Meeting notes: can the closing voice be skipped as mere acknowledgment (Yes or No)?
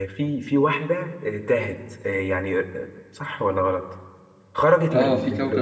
No